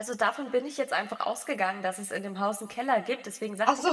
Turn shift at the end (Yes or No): No